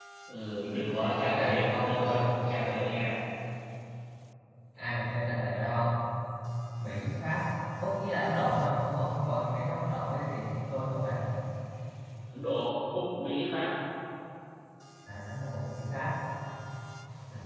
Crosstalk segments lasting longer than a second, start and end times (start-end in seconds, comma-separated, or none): 1.0-2.4